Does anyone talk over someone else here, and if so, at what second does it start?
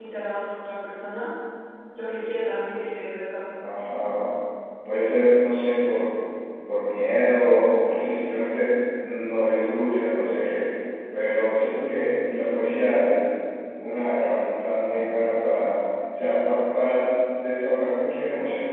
none

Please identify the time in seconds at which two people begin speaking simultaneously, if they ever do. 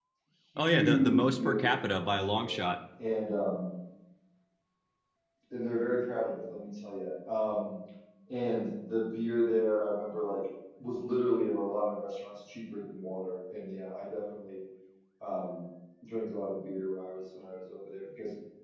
1 s

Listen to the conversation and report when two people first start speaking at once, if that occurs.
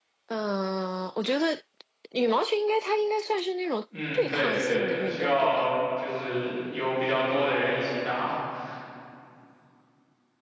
4 s

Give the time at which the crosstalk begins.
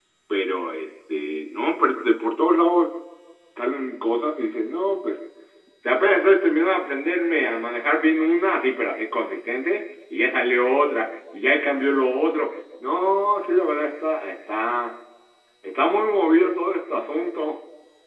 none

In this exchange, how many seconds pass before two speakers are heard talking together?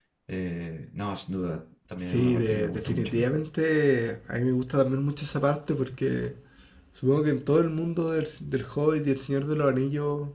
2 s

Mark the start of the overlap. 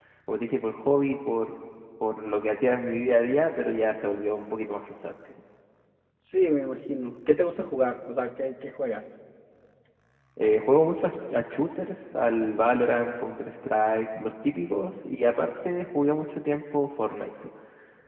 none

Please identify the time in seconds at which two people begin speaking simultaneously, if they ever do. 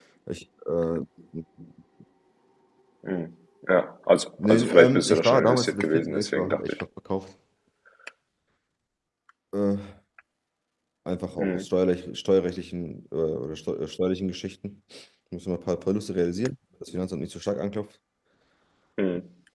4 s

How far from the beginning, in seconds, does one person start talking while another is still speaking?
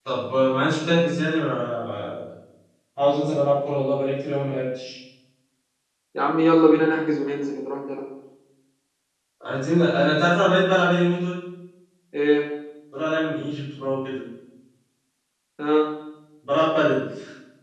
none

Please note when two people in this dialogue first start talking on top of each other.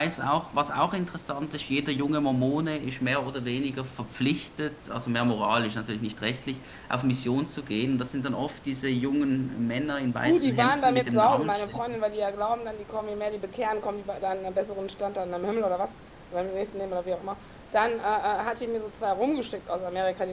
10 s

